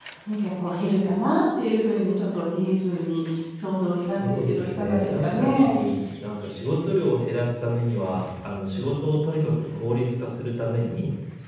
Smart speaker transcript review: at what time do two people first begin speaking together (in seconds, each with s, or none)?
4.0 s